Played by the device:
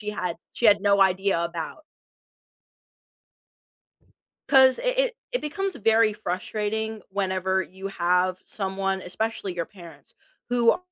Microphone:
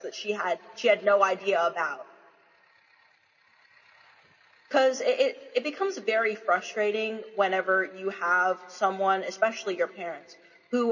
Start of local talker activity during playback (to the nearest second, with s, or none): none